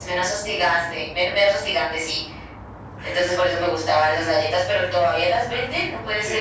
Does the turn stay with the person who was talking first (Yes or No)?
No